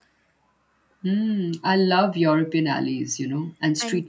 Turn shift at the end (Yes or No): No